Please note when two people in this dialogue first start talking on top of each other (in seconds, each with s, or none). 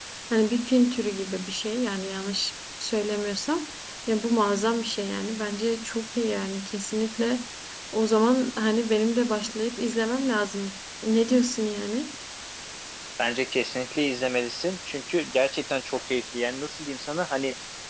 none